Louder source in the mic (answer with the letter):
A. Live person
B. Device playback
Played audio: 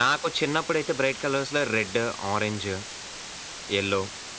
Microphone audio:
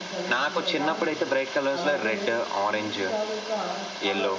B